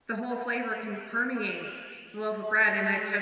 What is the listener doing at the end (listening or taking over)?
listening